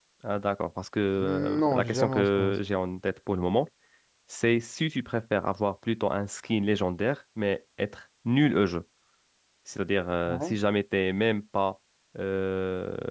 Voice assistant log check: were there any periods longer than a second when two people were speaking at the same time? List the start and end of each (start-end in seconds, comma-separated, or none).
1.2-2.6